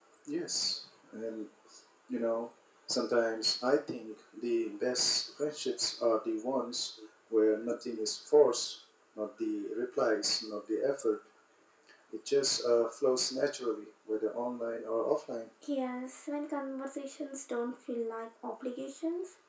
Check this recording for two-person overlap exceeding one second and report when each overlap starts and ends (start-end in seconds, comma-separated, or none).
none